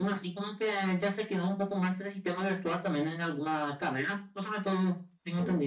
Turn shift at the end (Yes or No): Yes